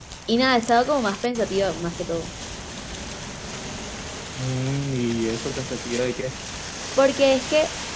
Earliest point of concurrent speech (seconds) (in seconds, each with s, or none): none